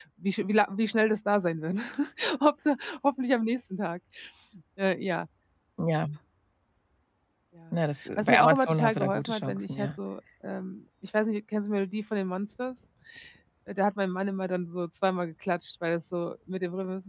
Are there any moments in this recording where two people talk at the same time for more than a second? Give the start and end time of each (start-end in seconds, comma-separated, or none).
8.2-9.9